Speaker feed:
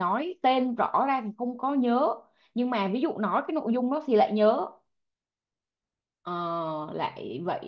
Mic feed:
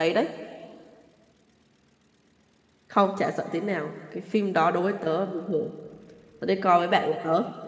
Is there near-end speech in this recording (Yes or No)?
Yes